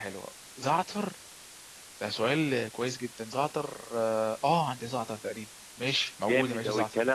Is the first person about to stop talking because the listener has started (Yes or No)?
Yes